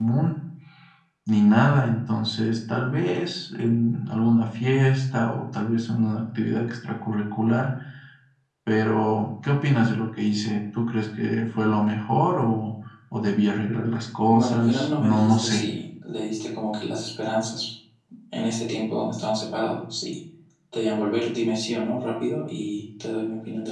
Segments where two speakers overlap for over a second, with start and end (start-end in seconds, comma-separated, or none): 14.3-15.6